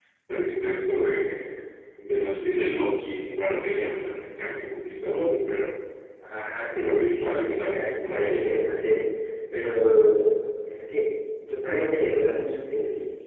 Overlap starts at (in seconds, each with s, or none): 6.8 s